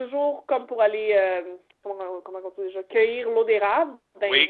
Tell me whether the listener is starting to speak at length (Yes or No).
No